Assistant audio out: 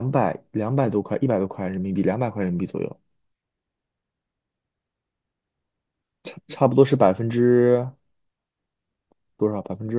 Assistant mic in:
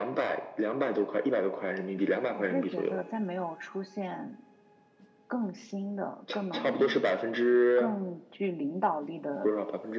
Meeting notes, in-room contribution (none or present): present